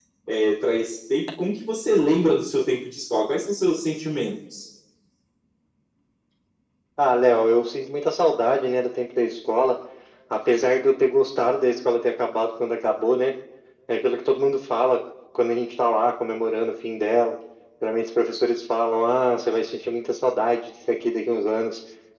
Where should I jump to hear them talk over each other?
none

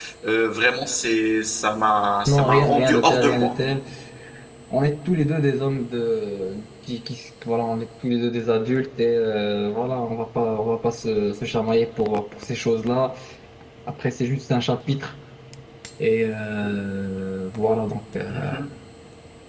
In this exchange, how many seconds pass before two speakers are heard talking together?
2.3 s

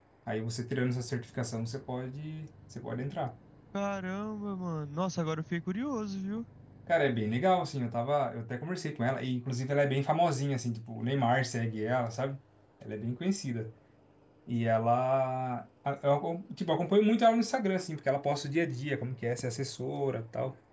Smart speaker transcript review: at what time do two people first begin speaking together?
none

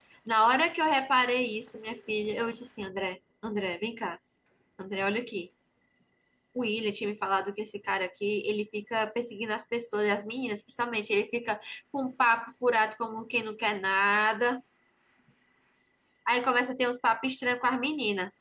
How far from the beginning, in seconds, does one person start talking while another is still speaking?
none

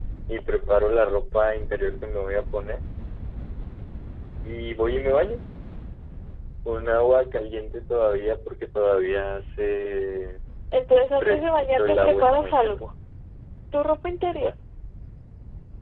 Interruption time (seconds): 11.2 s

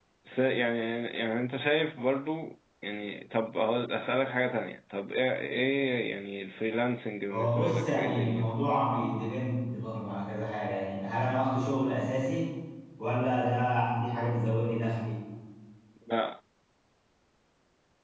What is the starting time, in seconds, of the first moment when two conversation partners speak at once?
7.3 s

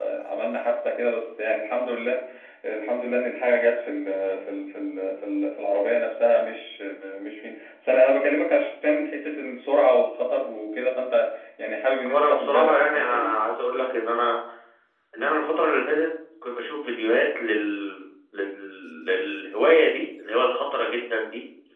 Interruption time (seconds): 12.1 s

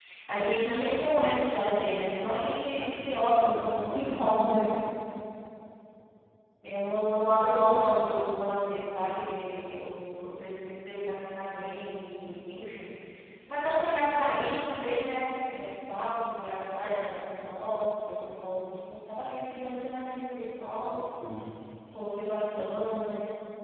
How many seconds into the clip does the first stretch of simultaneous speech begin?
2.6 s

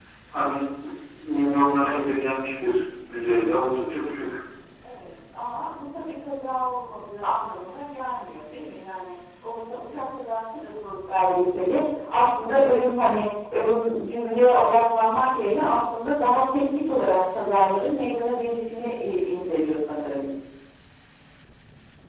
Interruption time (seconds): none

